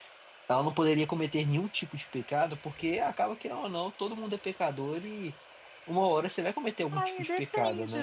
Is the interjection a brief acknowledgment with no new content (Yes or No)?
No